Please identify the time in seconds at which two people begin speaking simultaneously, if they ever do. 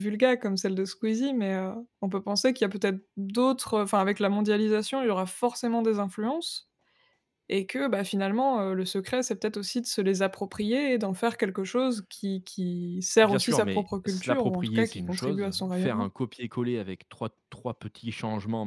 13.2 s

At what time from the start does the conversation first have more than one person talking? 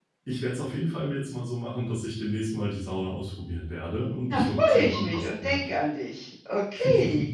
3.9 s

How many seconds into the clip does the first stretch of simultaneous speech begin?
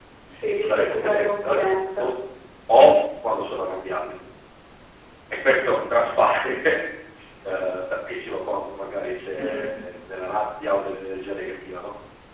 0.5 s

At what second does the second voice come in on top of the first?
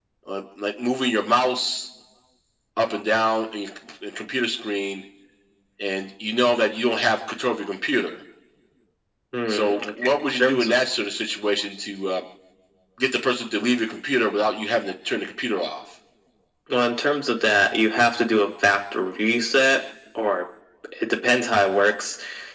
9.5 s

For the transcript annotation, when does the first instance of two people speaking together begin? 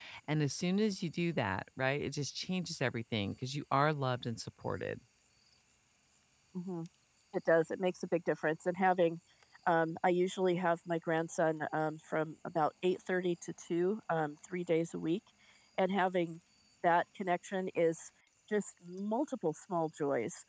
none

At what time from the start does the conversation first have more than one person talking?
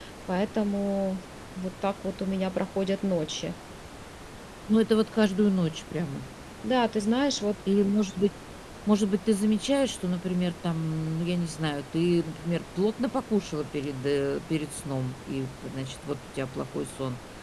none

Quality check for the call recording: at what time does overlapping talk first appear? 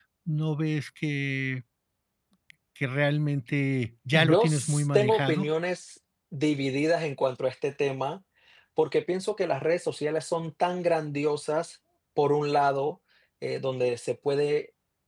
4.1 s

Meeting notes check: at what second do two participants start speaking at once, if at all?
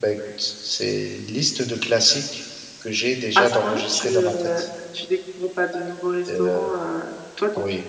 3.4 s

